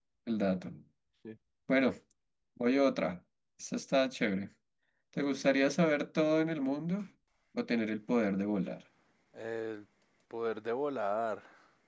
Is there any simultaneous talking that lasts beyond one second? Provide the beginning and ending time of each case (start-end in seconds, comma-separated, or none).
none